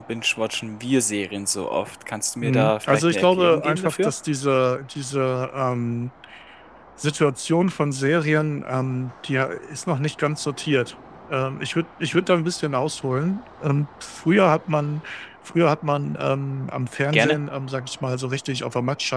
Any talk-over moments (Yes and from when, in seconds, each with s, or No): Yes, from 2.4 s